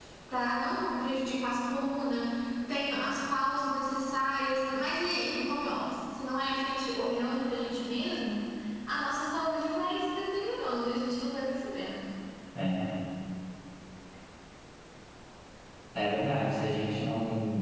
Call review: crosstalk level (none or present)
none